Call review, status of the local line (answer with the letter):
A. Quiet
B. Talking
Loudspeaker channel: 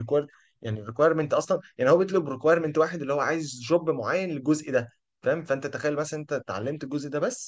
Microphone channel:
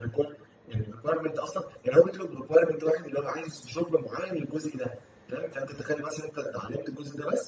A